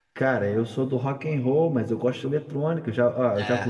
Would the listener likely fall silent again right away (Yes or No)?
Yes